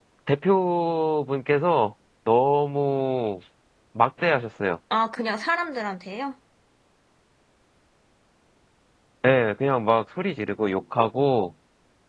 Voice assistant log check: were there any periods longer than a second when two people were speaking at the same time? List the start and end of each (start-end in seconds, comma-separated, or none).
none